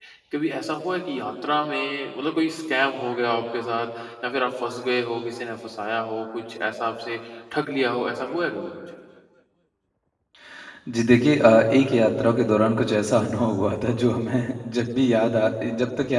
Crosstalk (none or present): none